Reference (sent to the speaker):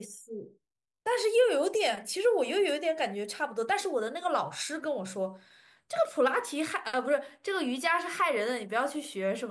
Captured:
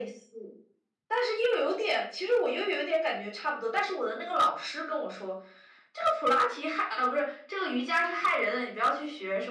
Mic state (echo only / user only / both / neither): echo only